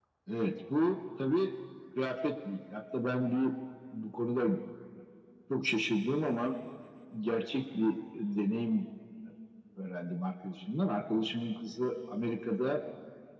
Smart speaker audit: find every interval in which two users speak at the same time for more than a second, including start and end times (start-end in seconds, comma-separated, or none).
none